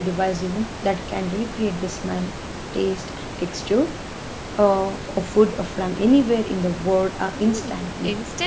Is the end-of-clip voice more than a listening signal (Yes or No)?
Yes